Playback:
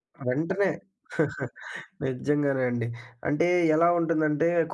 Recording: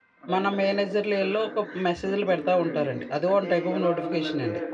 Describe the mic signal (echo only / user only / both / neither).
both